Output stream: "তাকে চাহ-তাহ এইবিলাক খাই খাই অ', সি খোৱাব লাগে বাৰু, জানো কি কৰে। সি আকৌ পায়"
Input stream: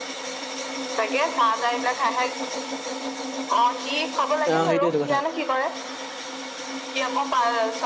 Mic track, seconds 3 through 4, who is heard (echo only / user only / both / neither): echo only